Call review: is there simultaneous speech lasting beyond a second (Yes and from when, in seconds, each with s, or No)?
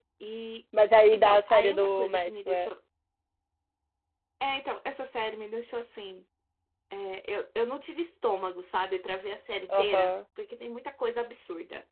Yes, from 1.1 s